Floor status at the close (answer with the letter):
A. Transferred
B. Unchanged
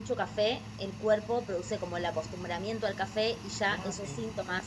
B